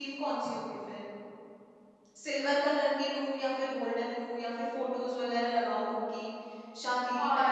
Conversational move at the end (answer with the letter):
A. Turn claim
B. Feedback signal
A